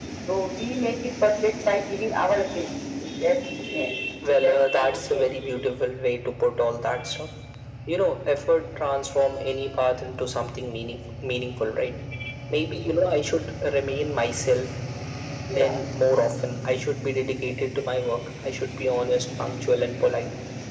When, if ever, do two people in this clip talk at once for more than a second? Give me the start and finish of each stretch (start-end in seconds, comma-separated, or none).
4.4-5.7